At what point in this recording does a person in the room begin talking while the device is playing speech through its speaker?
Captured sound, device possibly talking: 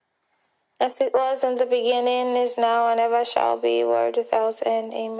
none

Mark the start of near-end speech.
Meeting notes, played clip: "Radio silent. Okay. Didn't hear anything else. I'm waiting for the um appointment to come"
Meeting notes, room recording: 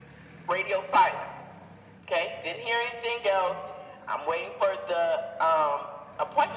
none

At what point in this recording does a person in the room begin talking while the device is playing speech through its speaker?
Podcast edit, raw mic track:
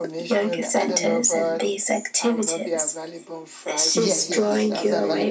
3.9 s

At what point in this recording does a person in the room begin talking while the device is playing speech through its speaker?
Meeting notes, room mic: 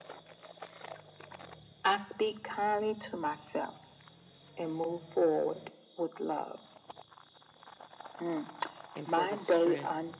8.9 s

